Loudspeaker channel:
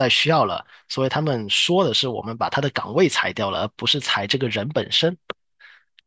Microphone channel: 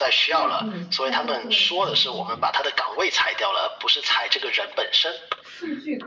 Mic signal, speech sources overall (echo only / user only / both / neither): both